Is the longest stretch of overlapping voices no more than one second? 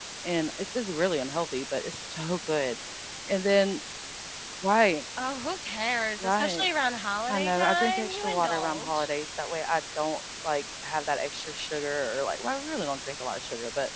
No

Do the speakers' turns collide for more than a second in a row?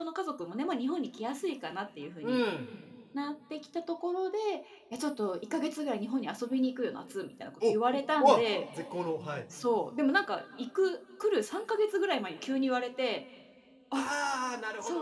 No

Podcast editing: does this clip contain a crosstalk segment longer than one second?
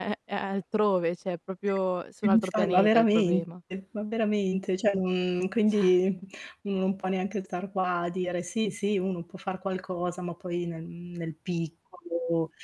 Yes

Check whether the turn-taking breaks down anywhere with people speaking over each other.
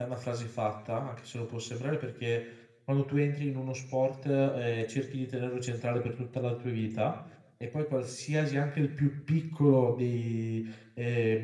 No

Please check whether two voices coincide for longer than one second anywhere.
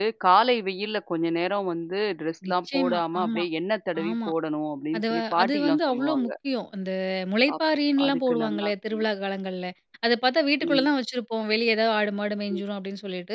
Yes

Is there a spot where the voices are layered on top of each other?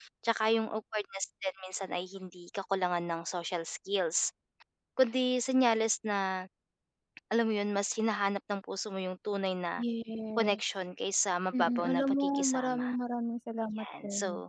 Yes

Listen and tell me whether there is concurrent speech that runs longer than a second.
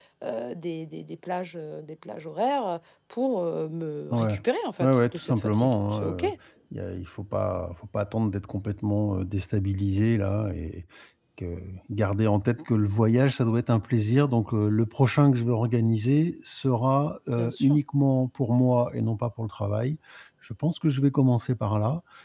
Yes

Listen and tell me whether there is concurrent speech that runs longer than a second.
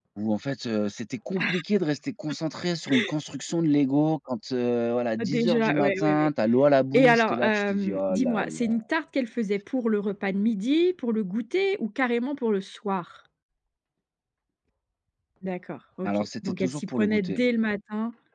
Yes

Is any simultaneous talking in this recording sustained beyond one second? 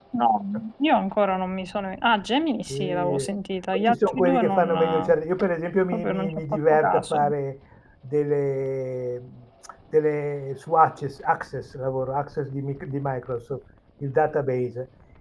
Yes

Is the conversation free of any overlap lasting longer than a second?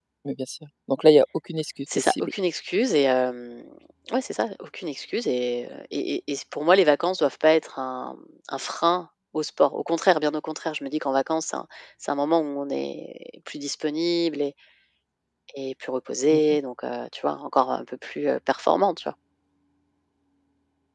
Yes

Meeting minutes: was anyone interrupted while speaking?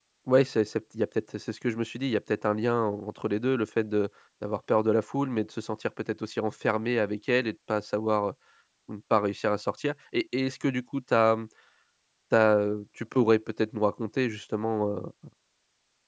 No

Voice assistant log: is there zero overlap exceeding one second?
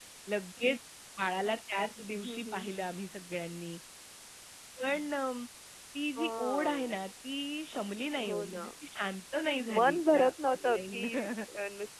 No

